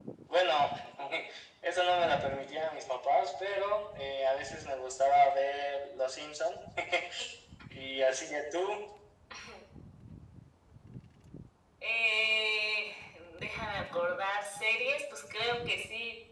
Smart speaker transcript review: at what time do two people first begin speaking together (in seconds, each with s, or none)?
none